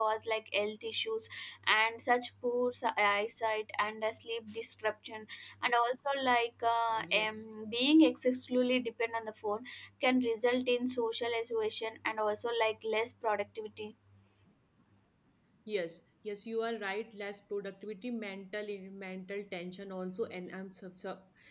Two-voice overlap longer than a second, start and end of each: none

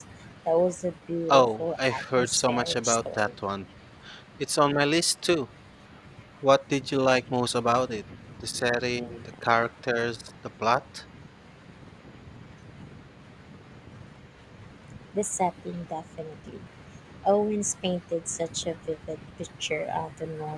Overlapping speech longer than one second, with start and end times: 1.3-3.3

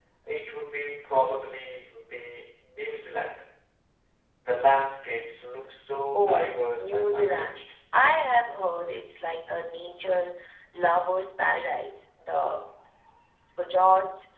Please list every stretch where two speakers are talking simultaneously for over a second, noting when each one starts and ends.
6.1-7.7

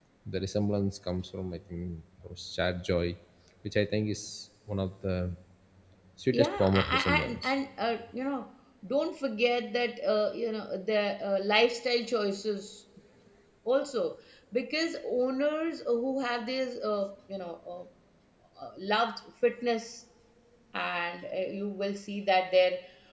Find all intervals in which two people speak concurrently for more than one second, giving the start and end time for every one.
6.3-7.5

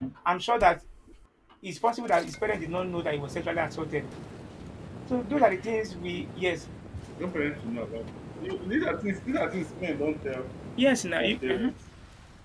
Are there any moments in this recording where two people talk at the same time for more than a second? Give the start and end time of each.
none

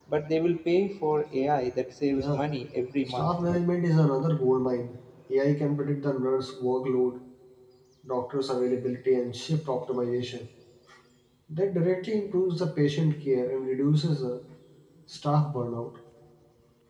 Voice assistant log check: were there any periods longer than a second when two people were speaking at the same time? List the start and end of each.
none

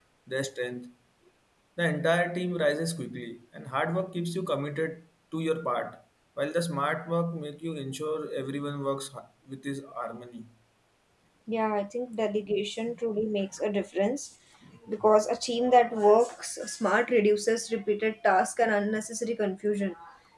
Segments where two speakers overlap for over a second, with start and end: none

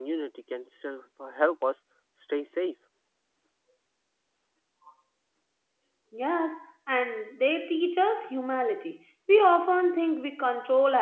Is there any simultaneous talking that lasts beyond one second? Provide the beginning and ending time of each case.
none

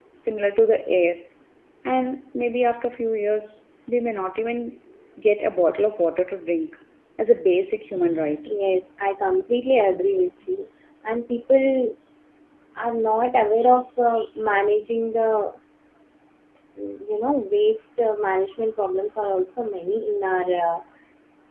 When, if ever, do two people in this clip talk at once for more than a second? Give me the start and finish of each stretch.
none

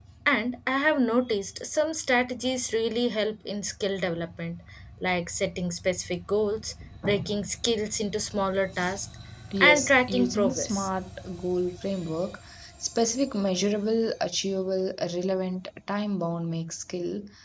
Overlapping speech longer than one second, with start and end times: 9.6-10.9

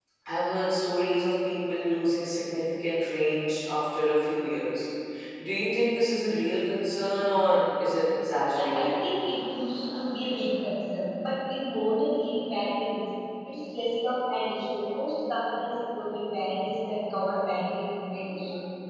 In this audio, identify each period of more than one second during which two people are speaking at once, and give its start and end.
none

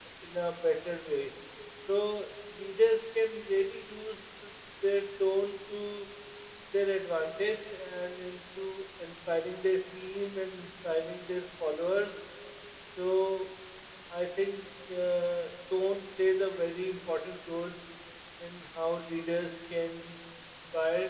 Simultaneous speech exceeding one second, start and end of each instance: none

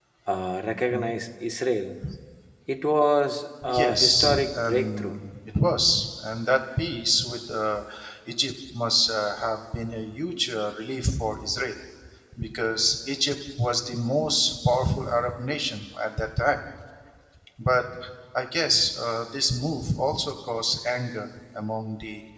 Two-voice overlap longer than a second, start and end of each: 3.6-5.2

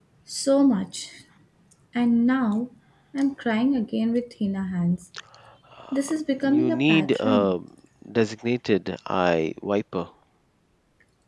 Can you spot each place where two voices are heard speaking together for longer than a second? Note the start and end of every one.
5.9-7.6

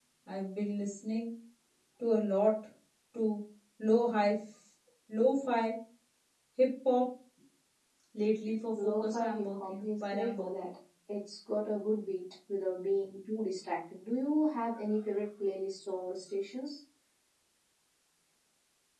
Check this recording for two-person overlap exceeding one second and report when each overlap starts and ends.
8.8-10.7

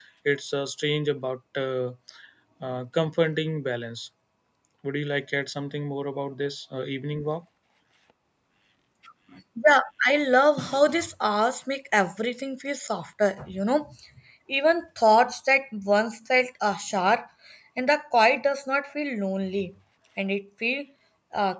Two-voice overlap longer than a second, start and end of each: none

